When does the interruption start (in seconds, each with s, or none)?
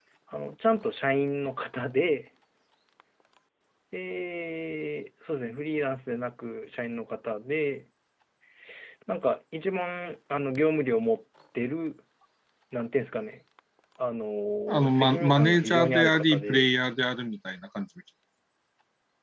14.8 s